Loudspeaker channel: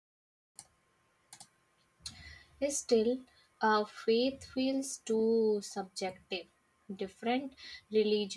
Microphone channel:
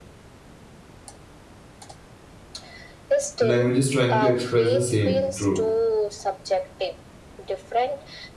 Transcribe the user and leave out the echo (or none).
languages trying to express the same truth.